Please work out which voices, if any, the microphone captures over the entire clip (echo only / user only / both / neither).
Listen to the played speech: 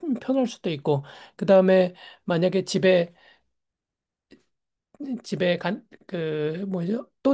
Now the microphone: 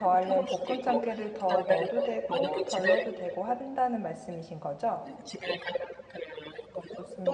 both